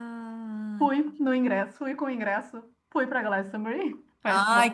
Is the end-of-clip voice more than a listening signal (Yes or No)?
Yes